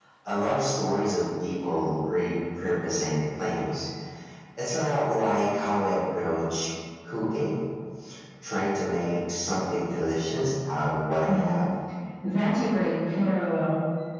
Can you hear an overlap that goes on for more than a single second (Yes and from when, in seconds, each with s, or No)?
No